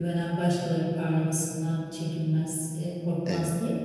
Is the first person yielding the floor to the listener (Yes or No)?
No